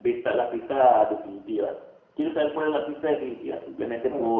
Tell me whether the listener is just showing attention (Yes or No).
No